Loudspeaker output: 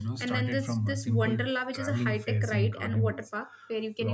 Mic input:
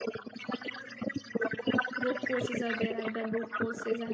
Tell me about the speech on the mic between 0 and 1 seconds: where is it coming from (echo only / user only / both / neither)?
echo only